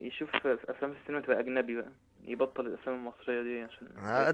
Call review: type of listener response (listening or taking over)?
taking over